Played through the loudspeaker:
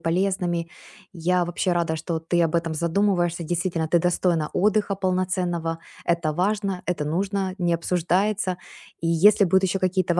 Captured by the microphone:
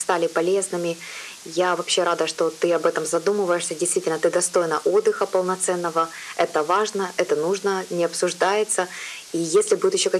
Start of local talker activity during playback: none

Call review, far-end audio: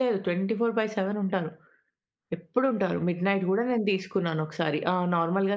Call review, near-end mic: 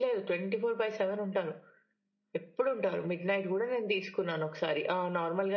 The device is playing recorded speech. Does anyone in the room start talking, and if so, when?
none

